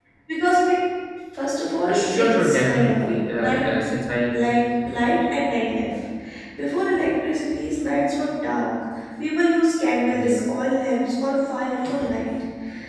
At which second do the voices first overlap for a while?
1.9 s

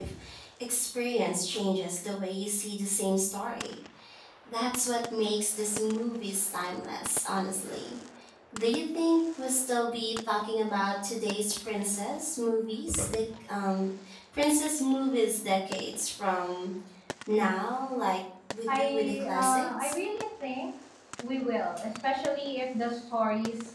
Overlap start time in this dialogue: 18.7 s

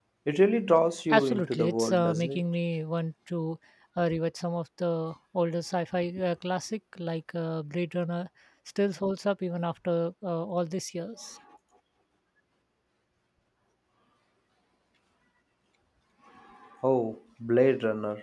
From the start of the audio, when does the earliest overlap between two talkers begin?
1.1 s

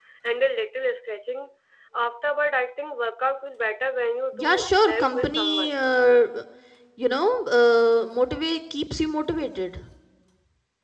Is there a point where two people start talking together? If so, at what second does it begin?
4.3 s

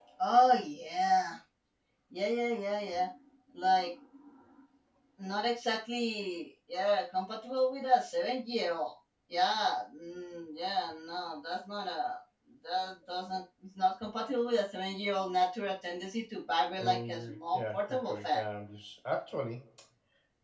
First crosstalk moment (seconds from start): 16.7 s

